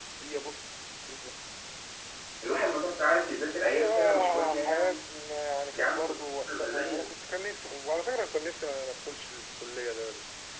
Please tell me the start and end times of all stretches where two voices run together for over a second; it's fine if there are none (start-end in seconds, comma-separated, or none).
3.6-5.0, 5.7-7.0